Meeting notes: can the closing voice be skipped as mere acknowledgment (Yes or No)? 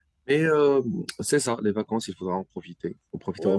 No